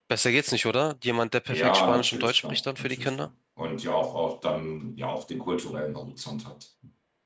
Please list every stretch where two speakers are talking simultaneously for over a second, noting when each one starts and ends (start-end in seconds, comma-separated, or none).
1.5-3.3